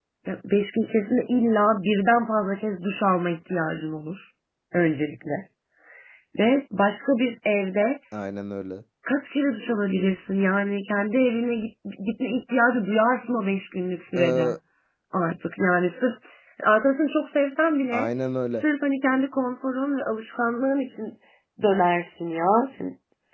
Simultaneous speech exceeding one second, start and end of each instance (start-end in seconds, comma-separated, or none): none